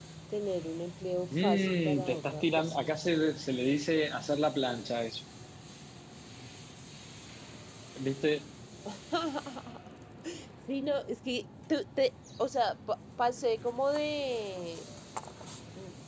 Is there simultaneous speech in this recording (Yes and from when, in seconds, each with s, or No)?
Yes, from 1.3 s